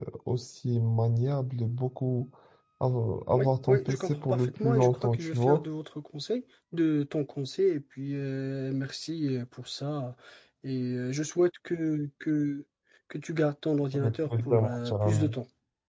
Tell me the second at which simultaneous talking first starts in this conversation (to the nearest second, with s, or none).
3 s